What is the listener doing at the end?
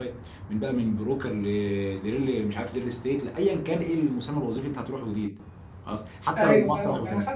taking over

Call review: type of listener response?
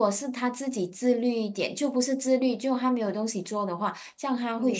taking over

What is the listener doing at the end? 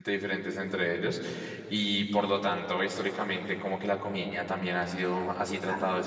listening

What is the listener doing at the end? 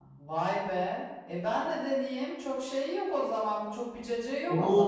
taking over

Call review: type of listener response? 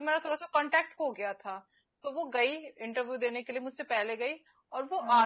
listening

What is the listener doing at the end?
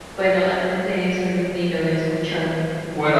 taking over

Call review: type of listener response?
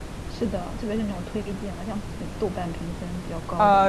taking over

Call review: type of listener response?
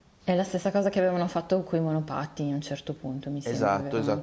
taking over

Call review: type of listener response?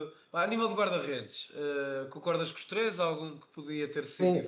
taking over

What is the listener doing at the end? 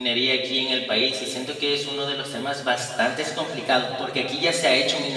listening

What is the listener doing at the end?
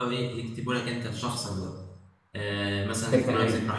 listening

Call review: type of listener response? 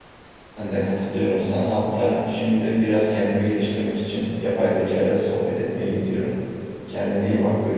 taking over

